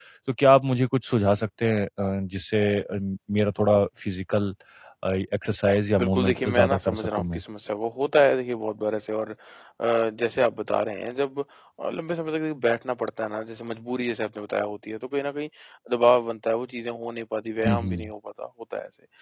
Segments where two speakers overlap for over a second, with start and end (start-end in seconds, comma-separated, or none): 6.0-7.4